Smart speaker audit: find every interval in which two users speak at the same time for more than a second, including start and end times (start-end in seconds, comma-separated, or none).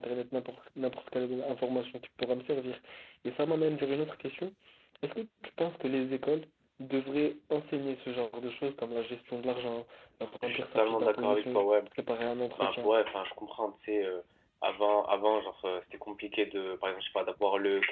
10.4-11.7